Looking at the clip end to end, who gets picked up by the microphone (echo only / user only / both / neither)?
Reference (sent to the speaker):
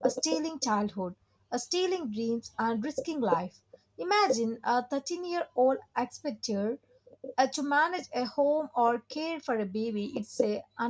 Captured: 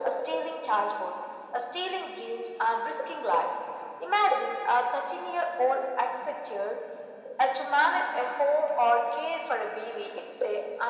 echo only